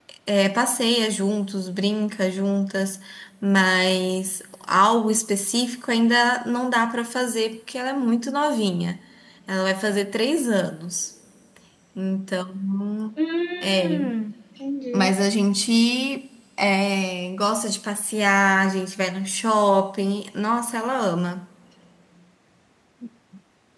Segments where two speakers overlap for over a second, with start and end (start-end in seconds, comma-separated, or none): none